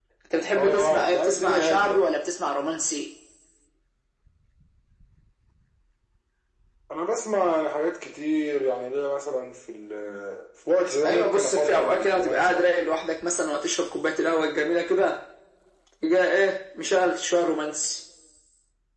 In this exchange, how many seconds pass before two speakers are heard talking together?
0.6 s

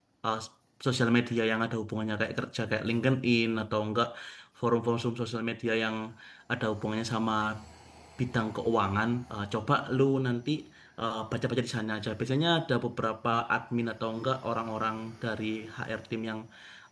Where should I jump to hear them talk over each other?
none

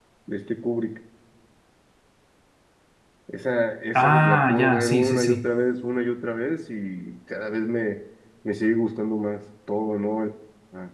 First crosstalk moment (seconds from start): 4.0 s

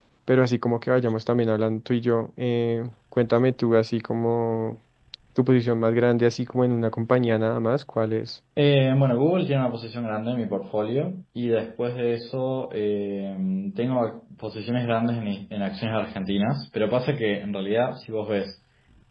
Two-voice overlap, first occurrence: none

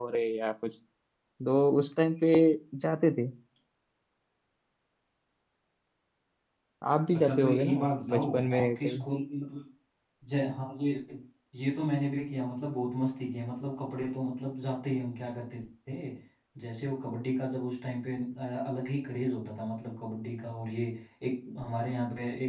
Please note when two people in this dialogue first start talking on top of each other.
7.1 s

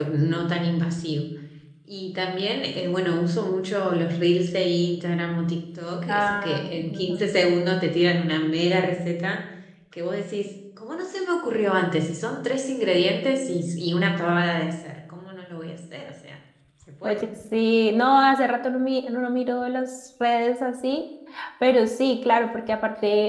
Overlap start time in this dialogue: 6.1 s

